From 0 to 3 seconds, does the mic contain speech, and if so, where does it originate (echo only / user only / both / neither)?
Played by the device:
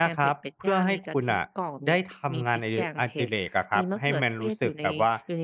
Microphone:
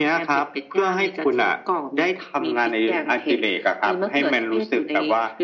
echo only